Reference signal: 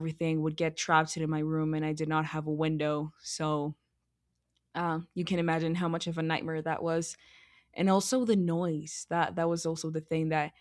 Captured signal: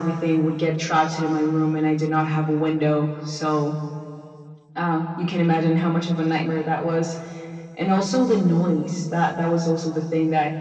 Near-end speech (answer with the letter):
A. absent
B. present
A